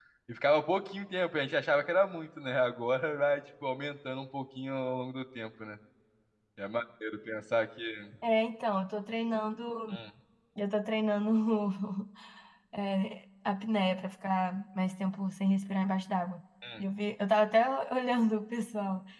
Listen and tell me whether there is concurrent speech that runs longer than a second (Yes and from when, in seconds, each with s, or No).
No